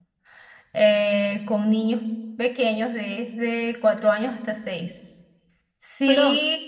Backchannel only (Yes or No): Yes